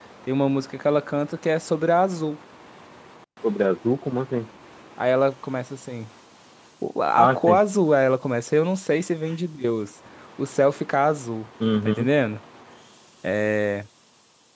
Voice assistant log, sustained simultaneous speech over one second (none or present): none